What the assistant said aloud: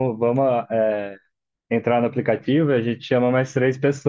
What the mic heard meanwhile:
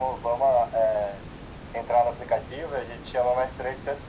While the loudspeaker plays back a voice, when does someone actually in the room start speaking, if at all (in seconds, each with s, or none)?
none